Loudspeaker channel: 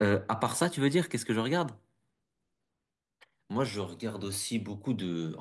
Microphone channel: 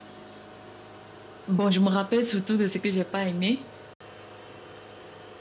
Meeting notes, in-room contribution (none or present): present